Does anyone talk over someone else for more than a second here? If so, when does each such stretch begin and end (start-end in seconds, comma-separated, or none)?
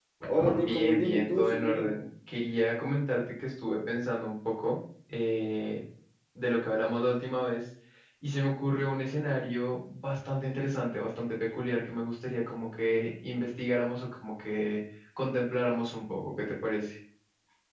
0.6-2.0